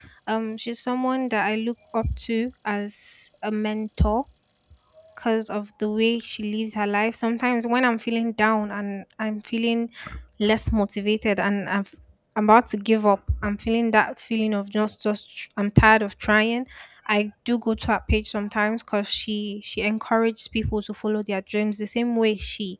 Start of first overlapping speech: none

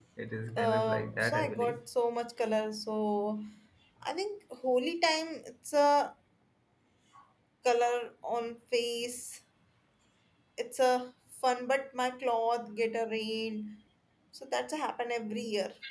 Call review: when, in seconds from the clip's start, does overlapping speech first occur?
0.6 s

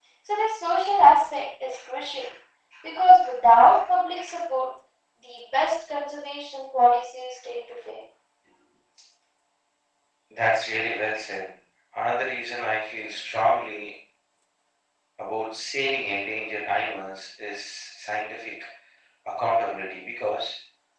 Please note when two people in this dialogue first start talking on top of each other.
none

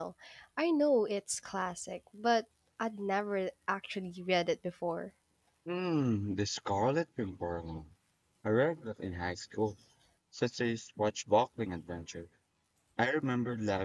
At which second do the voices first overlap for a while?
none

